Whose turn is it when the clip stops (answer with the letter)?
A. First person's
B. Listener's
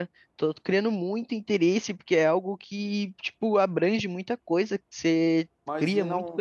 B